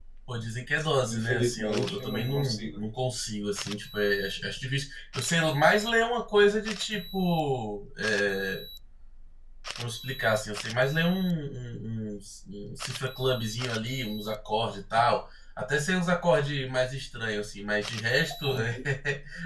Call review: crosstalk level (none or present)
present